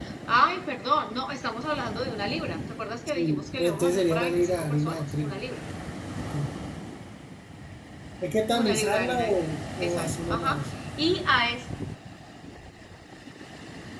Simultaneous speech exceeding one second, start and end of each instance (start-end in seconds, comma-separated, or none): 3.1-5.4, 8.6-10.6